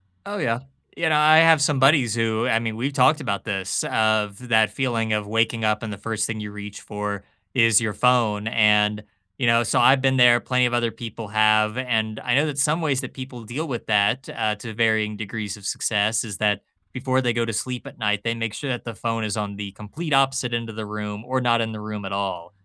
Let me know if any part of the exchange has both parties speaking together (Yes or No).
No